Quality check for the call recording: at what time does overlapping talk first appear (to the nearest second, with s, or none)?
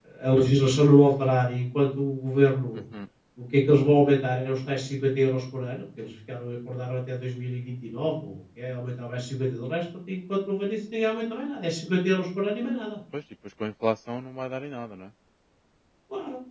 none